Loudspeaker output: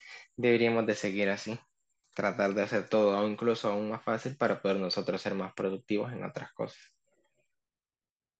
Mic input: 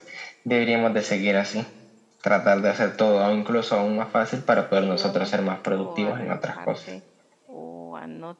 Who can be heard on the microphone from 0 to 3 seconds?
echo only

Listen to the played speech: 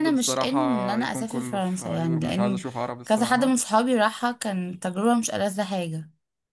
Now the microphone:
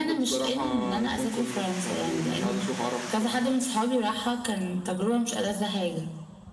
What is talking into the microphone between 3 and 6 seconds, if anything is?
echo only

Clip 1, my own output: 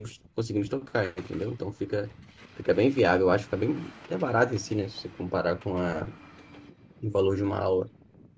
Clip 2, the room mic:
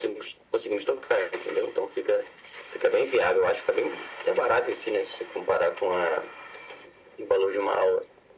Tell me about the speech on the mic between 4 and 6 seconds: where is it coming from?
echo only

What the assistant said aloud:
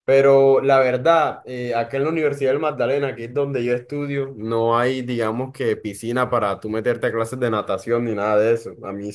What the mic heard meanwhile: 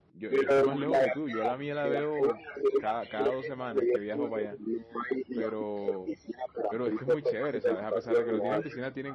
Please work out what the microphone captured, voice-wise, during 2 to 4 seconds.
both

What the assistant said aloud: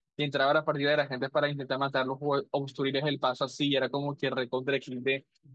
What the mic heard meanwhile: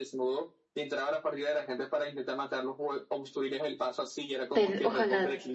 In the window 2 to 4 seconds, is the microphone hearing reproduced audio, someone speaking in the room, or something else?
echo only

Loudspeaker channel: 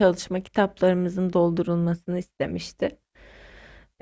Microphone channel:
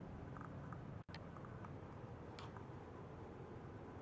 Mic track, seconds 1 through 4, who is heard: neither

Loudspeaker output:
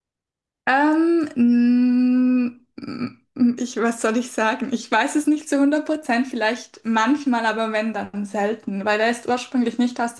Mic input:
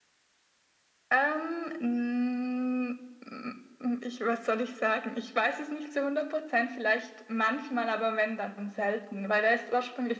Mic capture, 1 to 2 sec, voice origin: echo only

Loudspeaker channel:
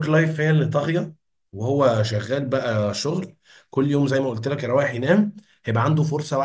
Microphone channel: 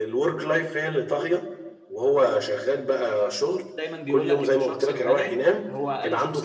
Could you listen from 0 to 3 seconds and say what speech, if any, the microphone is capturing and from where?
echo only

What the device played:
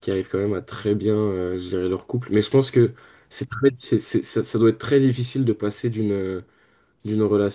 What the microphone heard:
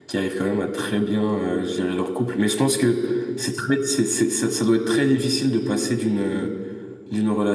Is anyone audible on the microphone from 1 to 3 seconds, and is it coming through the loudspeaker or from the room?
echo only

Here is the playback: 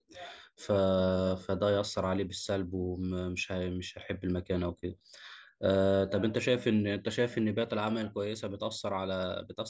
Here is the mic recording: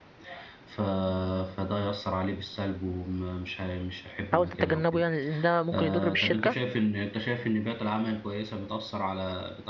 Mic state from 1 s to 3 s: echo only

